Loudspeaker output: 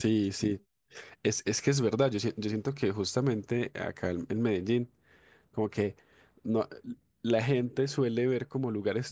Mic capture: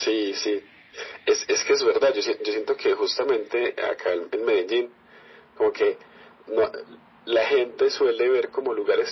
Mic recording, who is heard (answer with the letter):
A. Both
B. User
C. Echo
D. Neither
C